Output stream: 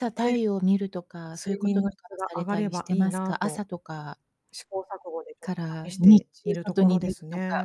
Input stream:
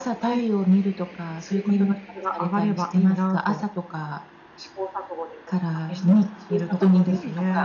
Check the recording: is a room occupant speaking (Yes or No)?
Yes